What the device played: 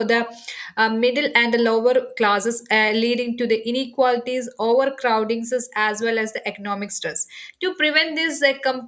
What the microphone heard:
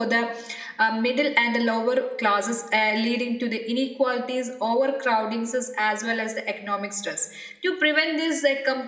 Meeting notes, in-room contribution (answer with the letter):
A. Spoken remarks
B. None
B